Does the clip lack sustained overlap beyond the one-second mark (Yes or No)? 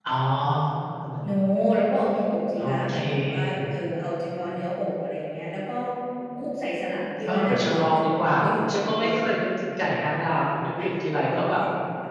No